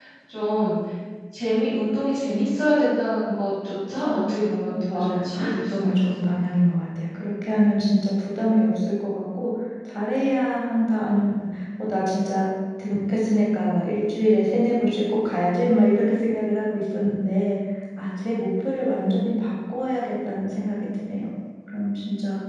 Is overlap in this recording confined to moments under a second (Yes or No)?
No